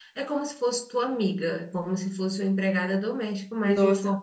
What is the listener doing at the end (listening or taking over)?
taking over